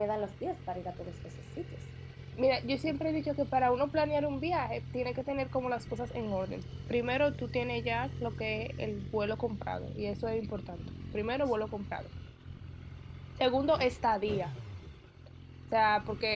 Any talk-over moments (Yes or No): No